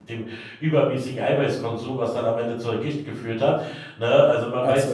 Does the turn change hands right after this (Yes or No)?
No